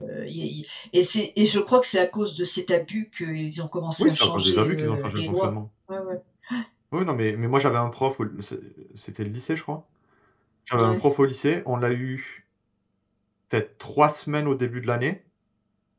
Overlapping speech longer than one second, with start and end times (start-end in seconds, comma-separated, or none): 4.0-5.5